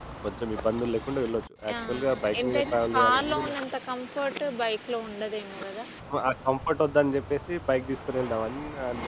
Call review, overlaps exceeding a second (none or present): present